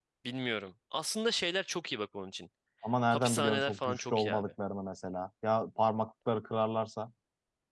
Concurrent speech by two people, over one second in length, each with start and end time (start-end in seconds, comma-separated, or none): 3.1-4.5